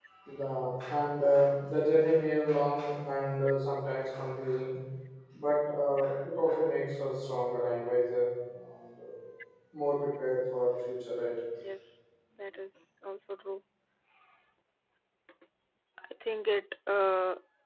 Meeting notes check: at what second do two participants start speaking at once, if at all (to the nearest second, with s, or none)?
none